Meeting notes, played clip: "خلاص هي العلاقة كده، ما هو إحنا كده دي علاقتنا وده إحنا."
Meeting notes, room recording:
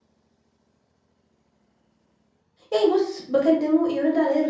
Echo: none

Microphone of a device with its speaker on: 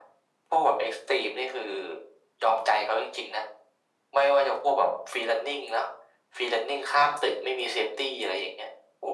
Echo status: present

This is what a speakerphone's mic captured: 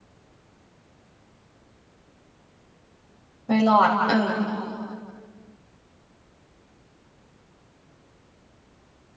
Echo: none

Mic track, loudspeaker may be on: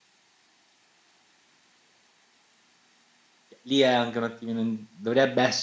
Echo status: none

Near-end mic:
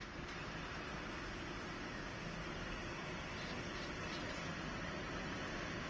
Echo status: none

